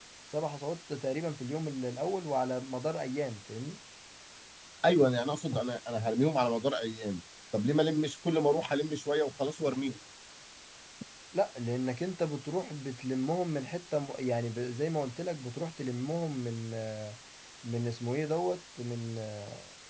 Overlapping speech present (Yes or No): No